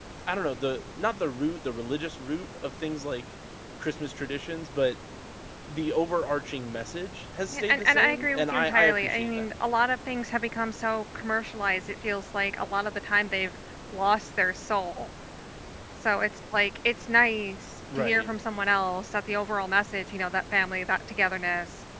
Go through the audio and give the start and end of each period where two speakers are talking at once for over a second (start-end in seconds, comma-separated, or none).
7.5-9.5